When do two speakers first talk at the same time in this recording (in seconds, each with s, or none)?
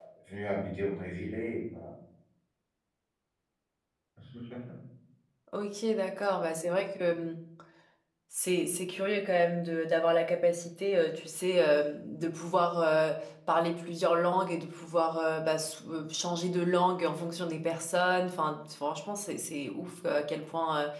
none